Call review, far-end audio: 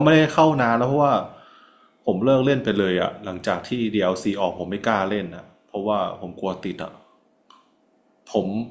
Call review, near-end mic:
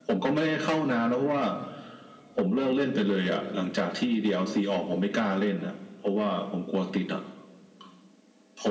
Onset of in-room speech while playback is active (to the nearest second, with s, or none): none